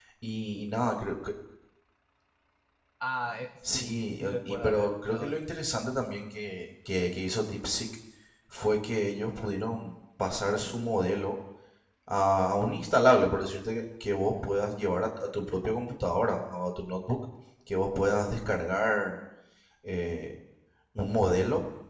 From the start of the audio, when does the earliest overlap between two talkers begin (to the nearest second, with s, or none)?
4 s